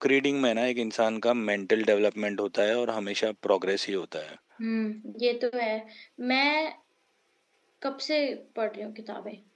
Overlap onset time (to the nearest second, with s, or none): none